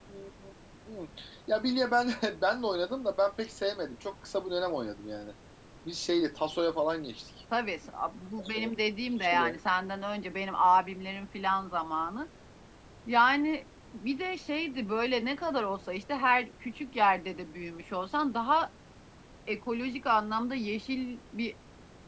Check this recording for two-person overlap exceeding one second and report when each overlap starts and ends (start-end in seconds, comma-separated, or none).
none